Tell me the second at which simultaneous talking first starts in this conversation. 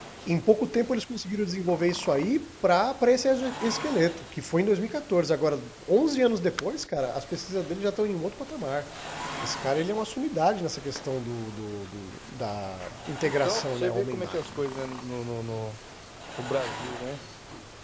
13.2 s

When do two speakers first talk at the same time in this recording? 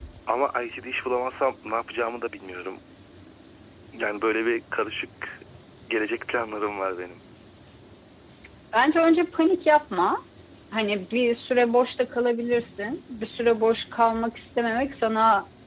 none

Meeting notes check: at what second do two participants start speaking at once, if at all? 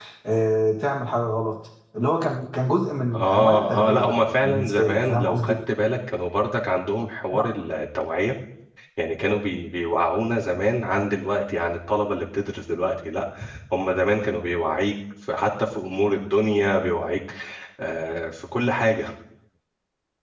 3.1 s

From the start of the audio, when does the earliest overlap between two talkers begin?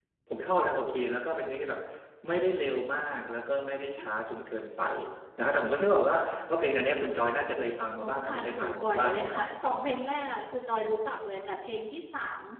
8.0 s

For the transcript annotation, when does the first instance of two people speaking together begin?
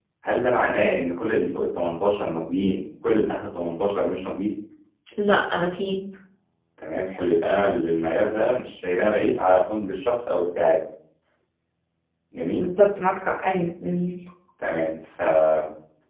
none

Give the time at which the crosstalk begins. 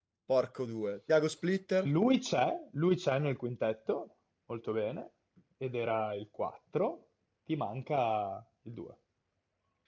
none

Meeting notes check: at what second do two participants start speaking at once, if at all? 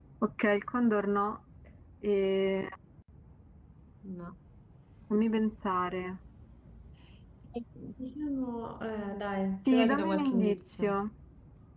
9.7 s

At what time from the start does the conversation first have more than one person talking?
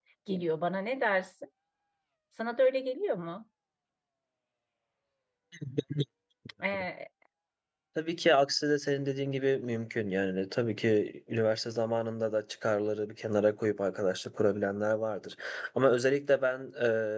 none

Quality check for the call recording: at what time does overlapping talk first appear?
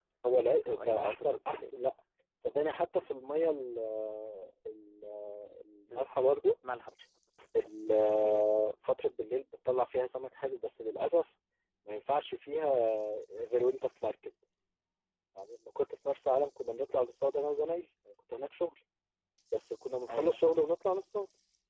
0.6 s

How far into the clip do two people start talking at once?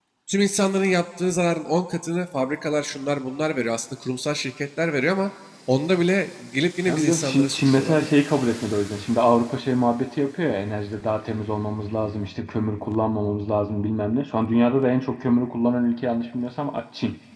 6.8 s

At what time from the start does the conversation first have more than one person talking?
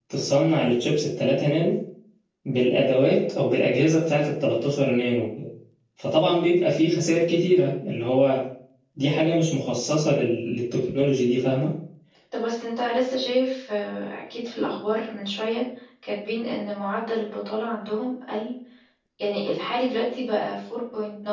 none

